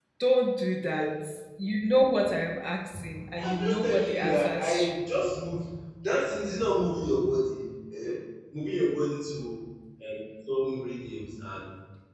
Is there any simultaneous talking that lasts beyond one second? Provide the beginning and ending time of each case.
3.4-5.2

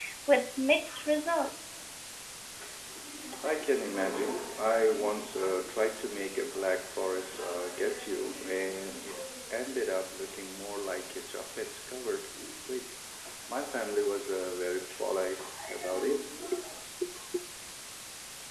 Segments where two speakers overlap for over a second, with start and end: none

